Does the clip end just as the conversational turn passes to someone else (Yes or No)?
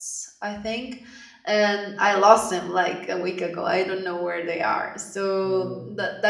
No